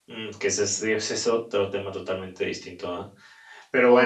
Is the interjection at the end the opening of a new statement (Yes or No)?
No